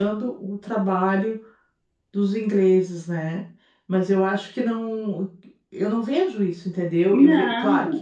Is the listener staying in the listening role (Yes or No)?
Yes